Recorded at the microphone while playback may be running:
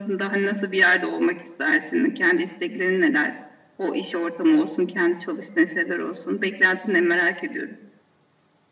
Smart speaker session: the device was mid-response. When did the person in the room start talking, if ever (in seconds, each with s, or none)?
none